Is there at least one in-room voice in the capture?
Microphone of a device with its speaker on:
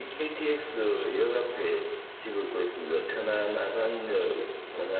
No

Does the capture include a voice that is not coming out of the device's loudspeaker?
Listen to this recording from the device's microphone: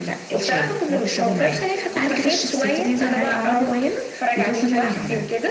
Yes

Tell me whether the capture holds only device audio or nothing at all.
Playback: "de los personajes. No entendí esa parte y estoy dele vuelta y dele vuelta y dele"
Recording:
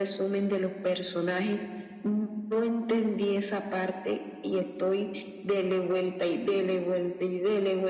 Yes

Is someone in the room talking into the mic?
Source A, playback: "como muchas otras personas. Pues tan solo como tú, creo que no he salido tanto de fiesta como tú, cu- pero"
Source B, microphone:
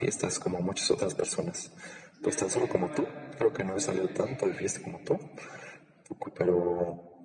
Yes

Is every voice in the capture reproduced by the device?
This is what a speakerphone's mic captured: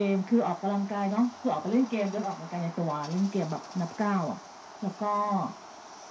Yes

